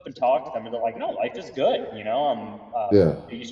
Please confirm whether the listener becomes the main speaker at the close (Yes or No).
No